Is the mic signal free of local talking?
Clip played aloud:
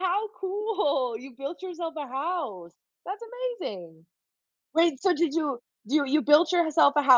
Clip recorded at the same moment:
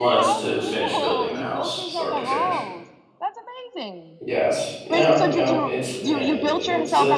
No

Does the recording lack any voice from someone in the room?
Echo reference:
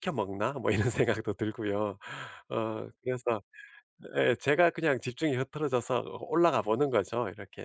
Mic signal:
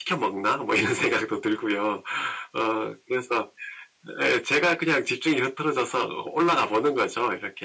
Yes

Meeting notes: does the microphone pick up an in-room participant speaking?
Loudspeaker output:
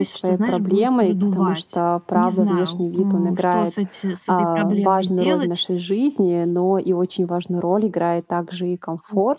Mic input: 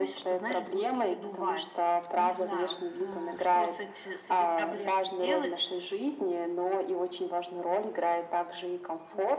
No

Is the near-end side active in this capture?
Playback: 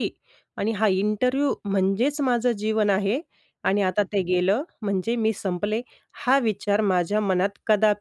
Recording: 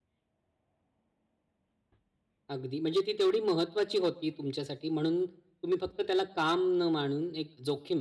Yes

